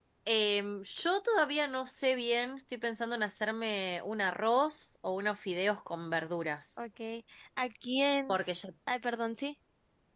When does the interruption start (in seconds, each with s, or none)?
none